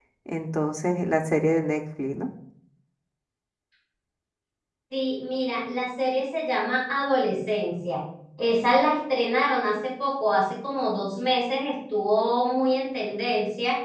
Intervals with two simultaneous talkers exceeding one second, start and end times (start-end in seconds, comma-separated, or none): none